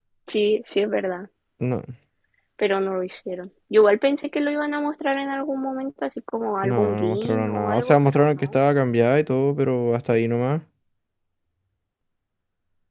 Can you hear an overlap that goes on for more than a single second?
Yes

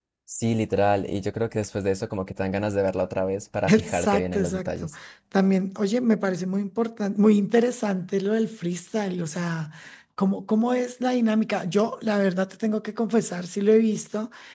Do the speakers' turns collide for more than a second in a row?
Yes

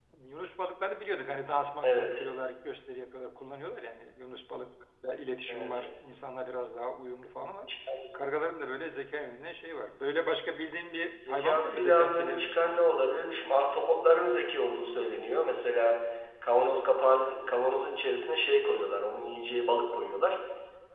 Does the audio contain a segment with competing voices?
Yes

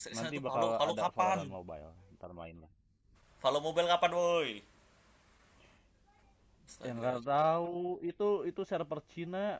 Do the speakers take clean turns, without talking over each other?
No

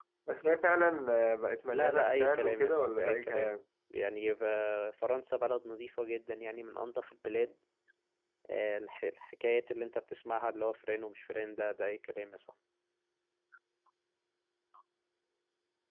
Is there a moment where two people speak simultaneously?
Yes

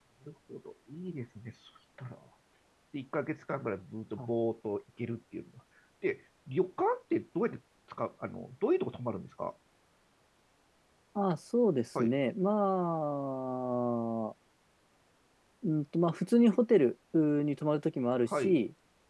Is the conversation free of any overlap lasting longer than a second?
Yes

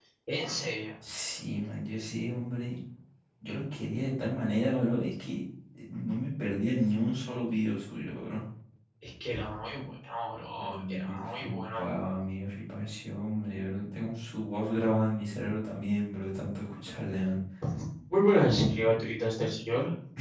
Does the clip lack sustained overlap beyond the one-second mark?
No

